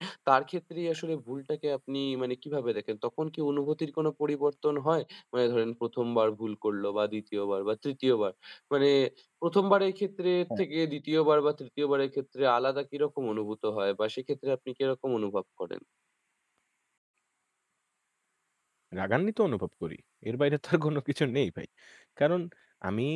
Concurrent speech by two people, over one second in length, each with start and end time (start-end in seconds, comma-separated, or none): none